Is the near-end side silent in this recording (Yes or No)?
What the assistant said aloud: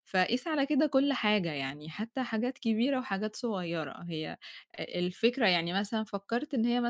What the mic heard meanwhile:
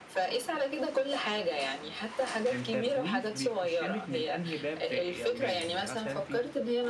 No